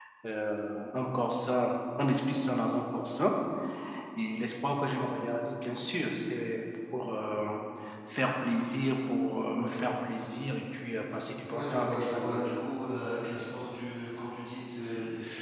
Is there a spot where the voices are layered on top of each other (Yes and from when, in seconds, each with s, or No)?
Yes, from 11.0 s